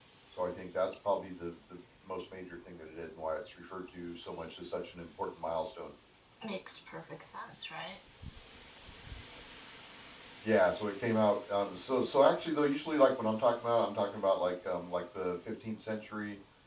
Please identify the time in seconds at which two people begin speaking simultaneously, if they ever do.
none

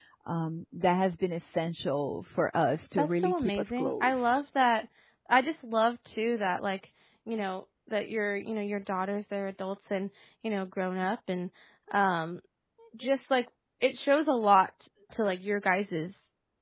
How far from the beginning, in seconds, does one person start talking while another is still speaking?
3.0 s

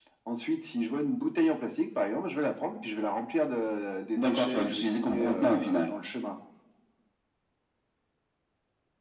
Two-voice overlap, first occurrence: 4.2 s

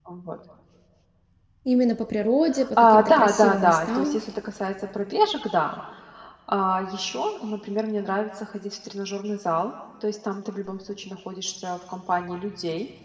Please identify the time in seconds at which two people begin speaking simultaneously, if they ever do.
2.8 s

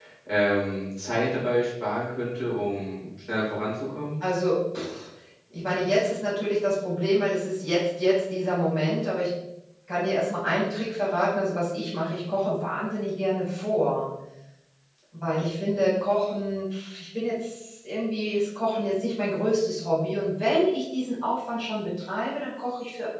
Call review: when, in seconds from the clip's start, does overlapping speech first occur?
none

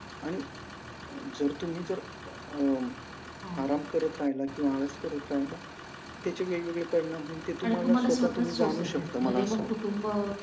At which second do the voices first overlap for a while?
7.6 s

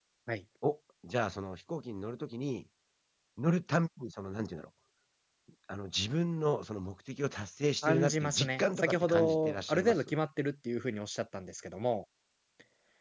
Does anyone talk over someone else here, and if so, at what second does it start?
7.8 s

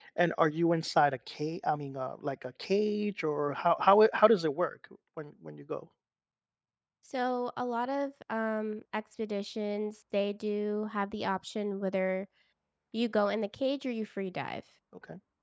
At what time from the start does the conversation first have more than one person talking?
none

